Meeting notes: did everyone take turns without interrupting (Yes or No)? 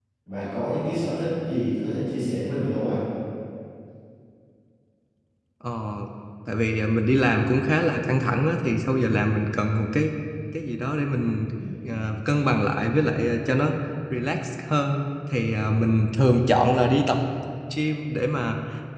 Yes